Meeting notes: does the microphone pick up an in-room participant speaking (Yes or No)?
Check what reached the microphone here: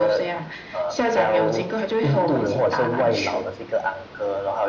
No